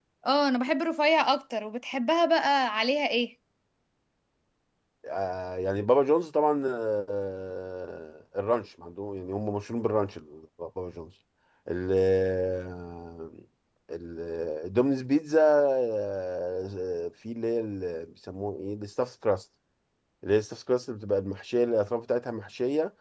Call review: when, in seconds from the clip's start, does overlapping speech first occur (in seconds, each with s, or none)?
none